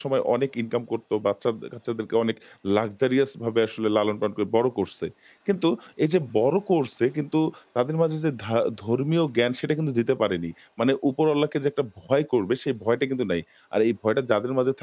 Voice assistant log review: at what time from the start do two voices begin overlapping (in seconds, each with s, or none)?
none